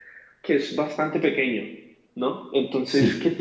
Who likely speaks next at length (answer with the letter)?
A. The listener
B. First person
B